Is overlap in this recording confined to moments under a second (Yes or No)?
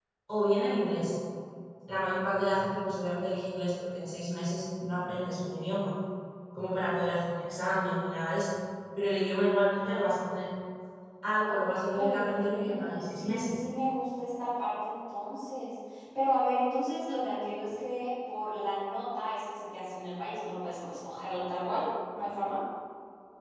No